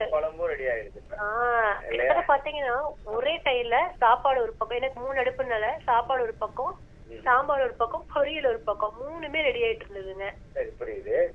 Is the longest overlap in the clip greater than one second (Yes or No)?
No